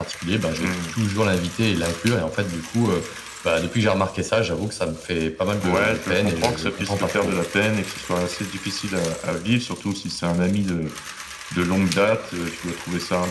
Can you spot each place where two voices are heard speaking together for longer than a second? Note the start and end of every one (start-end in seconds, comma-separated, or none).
5.6-7.4